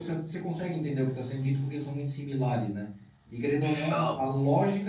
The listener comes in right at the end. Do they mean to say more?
No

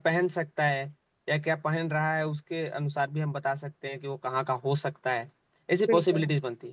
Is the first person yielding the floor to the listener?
No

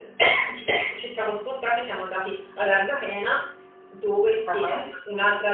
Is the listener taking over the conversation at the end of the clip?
No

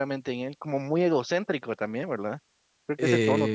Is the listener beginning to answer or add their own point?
Yes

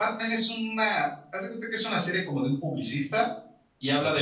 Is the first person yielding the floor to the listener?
No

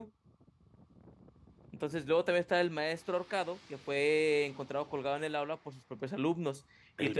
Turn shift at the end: No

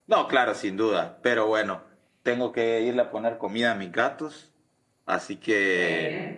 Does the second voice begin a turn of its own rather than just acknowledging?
No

